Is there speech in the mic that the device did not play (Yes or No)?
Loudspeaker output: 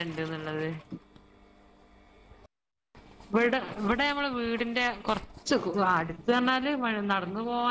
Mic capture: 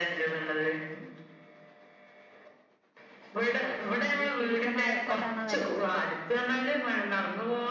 Yes